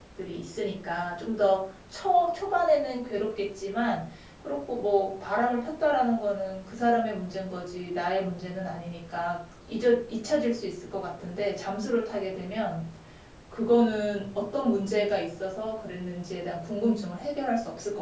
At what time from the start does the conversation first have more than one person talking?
none

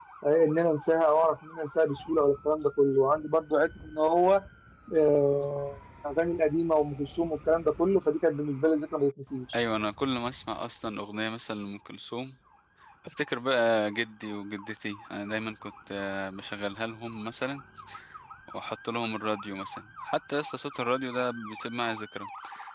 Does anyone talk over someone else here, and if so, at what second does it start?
none

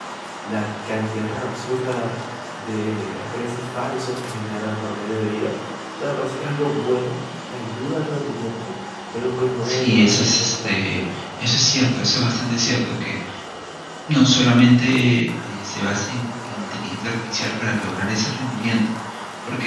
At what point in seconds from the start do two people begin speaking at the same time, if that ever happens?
9.6 s

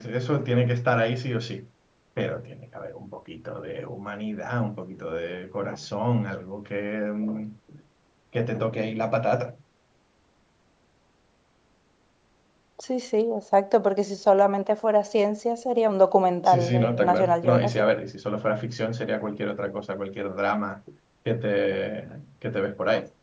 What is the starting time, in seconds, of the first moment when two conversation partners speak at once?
16.5 s

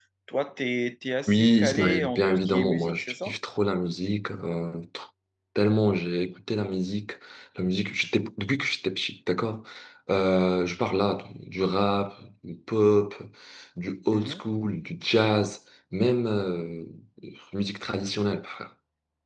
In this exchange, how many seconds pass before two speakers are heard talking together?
1.3 s

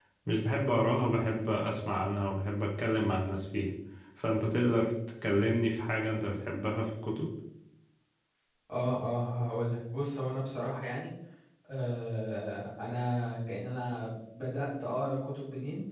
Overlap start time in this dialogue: none

